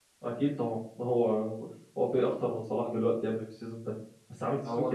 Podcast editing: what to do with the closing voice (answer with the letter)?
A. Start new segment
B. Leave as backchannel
B